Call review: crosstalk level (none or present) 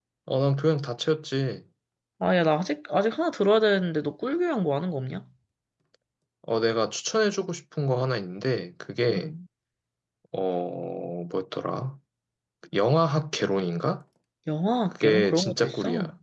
present